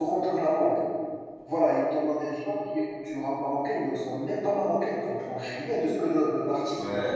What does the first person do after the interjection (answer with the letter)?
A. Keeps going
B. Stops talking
B